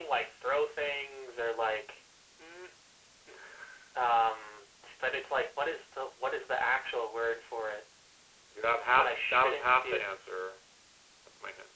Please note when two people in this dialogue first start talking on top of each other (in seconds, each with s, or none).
8.8 s